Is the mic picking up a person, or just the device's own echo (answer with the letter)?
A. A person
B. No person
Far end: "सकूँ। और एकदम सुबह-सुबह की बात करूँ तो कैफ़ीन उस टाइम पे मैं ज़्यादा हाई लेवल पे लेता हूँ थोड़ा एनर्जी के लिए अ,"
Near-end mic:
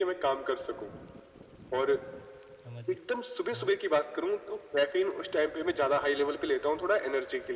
A